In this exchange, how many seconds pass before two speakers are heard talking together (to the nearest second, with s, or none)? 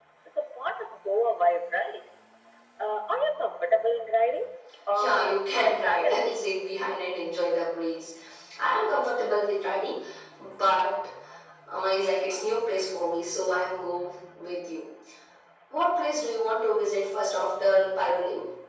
5 s